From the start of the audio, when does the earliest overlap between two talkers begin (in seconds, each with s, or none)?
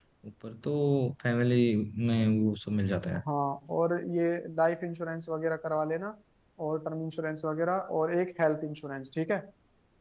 none